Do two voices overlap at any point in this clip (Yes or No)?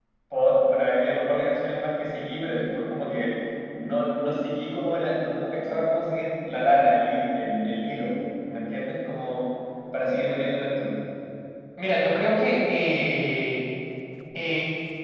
No